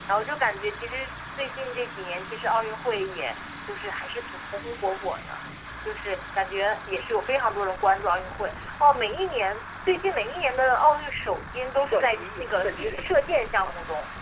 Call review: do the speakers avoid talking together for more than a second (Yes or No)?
No